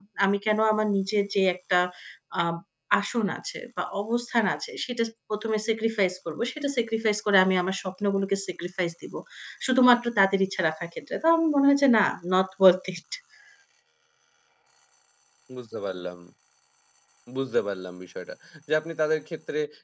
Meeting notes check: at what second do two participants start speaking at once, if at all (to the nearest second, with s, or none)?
none